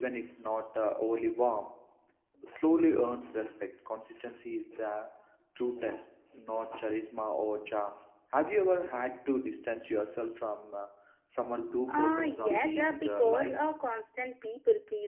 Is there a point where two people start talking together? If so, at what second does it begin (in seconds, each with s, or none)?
11.9 s